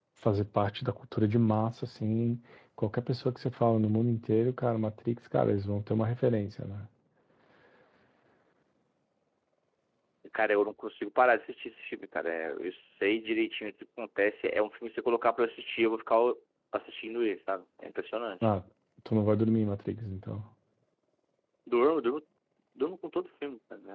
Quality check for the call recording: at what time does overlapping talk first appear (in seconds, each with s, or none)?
none